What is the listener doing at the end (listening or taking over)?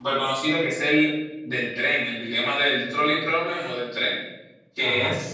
listening